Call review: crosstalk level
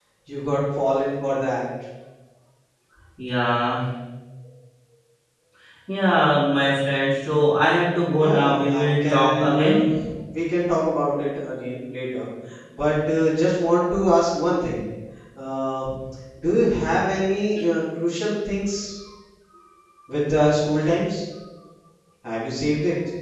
present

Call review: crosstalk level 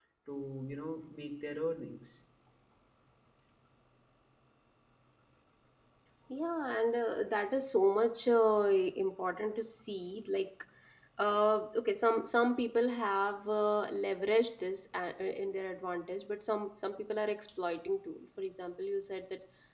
none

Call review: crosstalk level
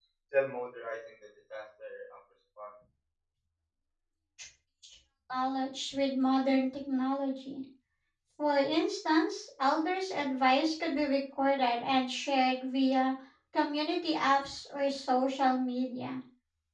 none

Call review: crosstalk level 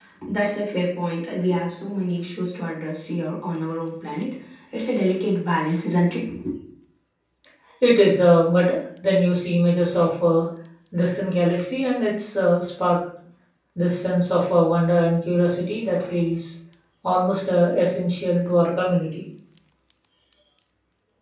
none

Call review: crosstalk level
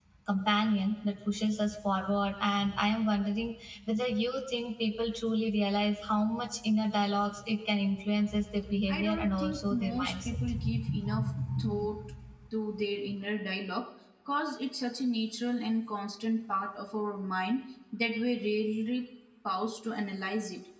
present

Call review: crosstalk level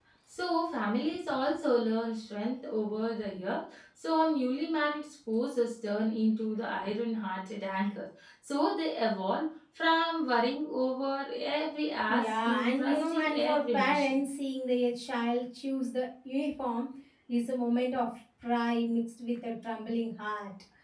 present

